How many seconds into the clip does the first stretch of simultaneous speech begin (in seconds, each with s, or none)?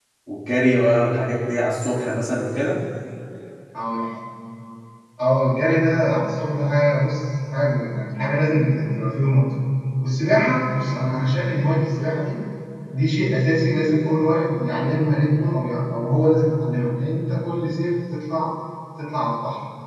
none